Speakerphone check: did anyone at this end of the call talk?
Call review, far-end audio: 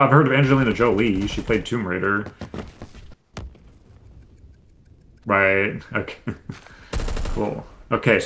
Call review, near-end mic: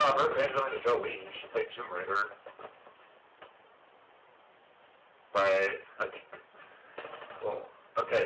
No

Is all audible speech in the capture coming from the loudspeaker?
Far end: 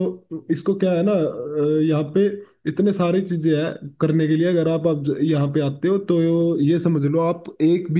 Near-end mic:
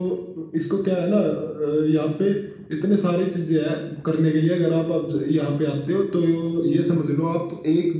Yes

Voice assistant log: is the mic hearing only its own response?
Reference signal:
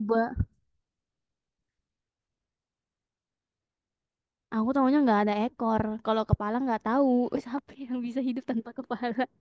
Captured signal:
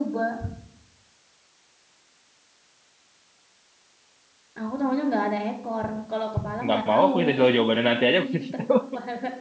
No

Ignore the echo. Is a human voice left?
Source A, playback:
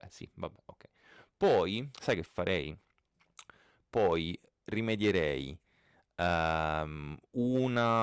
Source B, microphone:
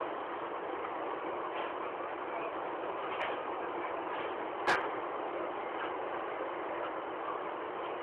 No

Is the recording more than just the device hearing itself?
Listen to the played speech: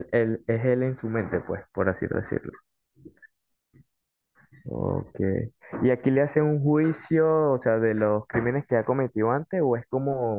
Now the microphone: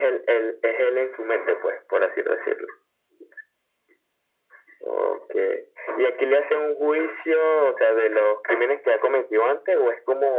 No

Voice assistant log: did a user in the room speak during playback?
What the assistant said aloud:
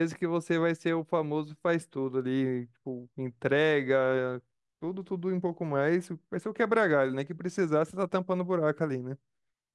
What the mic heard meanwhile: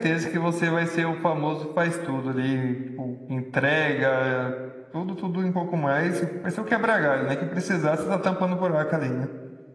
No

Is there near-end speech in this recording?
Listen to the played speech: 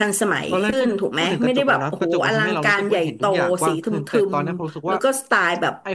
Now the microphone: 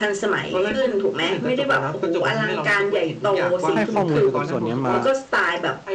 Yes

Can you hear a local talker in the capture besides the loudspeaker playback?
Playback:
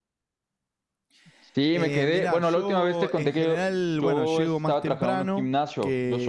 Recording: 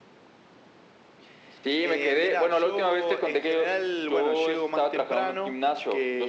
No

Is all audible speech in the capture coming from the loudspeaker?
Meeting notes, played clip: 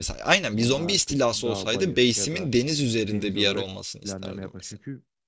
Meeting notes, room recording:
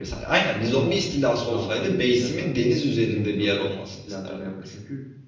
Yes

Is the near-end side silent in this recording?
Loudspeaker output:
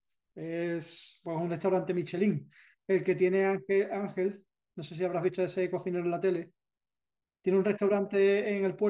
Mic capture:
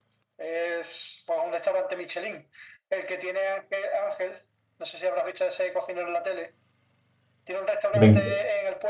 No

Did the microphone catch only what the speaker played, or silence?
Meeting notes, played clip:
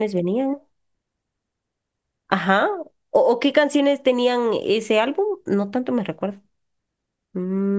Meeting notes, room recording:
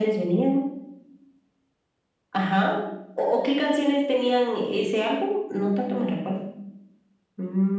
Yes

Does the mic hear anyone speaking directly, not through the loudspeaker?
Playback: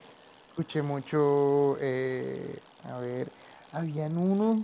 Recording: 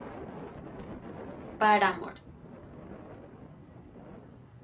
Yes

